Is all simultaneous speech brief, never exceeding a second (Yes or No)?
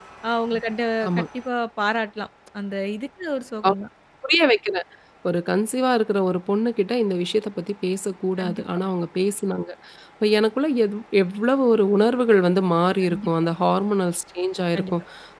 Yes